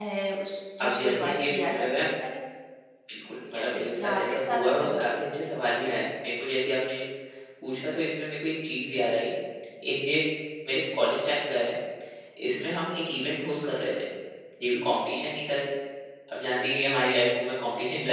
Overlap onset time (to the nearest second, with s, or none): 1 s